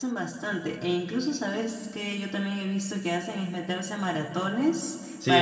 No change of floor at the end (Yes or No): No